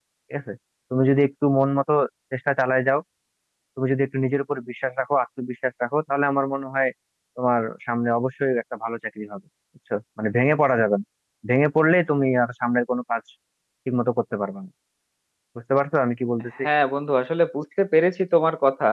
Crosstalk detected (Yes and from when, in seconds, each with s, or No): No